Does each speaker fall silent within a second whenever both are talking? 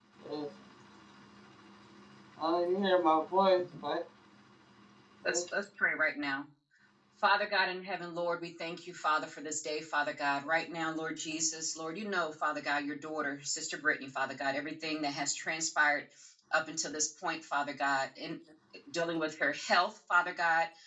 Yes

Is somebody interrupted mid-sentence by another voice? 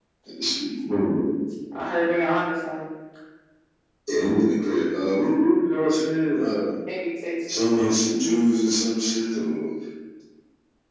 No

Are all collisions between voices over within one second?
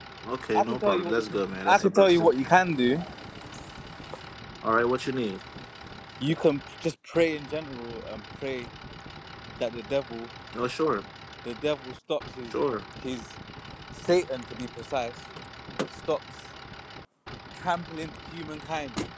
No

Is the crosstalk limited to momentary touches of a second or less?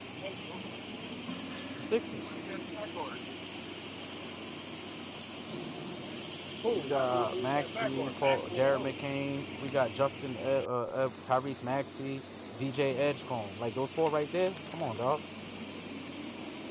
No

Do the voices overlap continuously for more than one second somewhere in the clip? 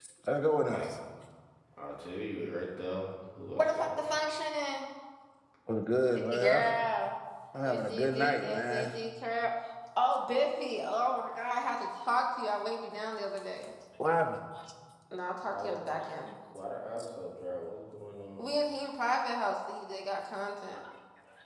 Yes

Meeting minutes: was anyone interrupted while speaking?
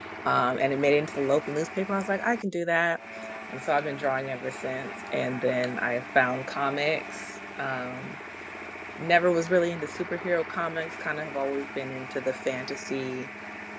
No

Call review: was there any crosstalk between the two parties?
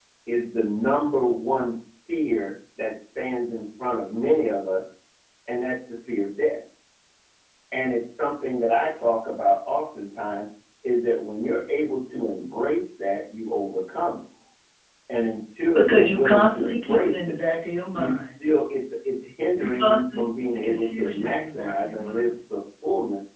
Yes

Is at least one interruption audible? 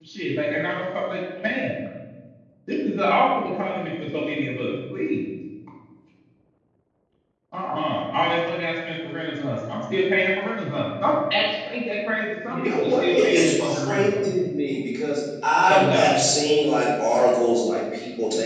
Yes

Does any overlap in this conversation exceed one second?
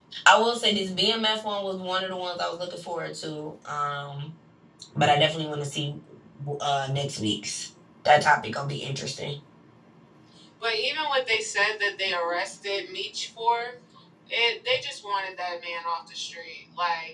No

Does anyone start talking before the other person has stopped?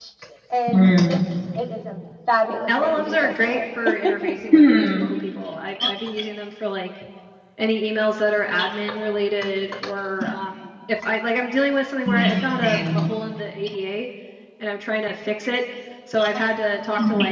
Yes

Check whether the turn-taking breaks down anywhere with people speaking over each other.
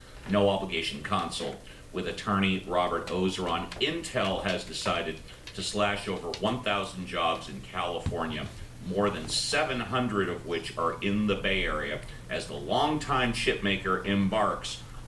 No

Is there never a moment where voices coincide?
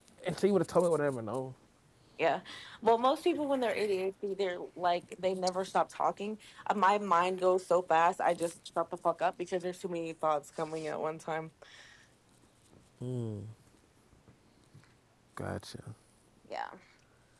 Yes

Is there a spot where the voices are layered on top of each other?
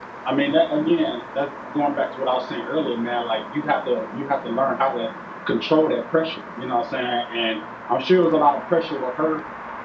No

